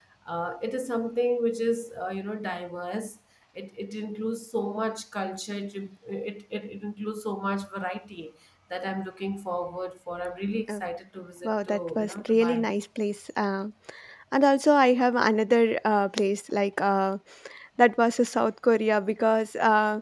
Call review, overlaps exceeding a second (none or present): present